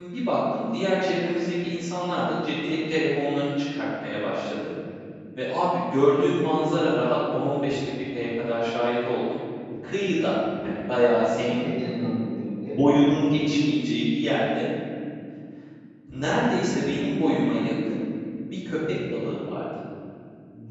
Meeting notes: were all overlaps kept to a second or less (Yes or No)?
Yes